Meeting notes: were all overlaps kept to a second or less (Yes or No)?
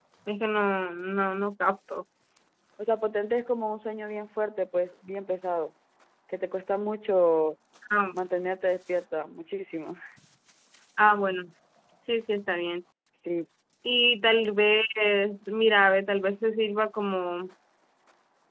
Yes